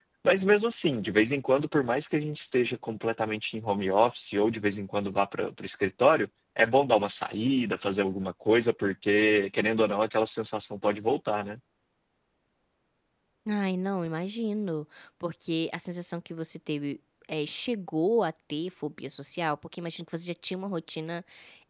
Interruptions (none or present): none